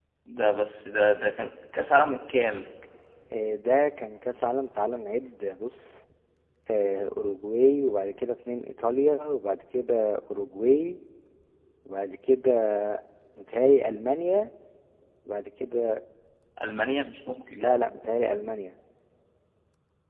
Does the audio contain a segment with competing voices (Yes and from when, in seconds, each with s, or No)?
No